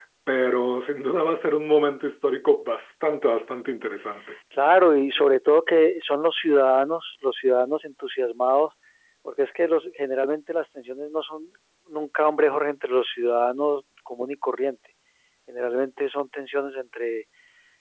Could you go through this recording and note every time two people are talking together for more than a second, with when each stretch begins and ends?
none

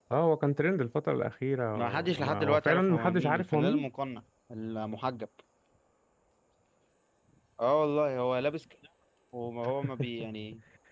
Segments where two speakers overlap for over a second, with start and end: 1.8-3.9

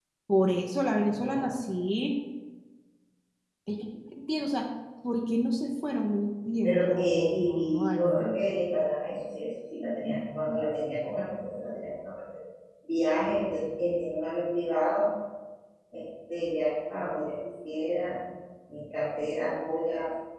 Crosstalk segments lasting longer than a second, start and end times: 6.6-8.3

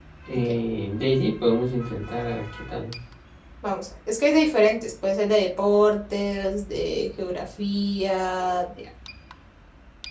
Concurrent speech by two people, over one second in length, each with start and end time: none

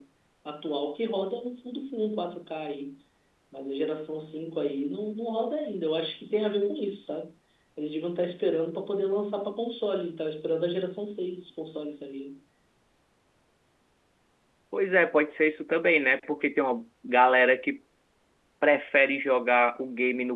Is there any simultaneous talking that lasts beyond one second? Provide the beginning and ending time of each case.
none

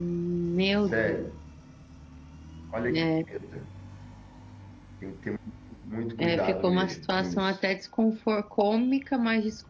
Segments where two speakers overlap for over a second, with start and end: 6.2-7.6

